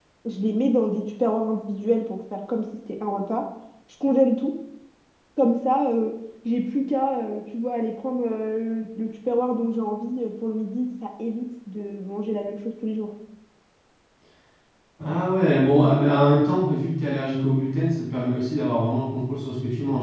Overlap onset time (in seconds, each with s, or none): none